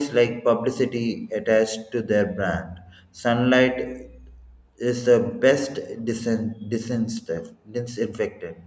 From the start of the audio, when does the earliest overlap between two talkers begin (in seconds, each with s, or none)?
none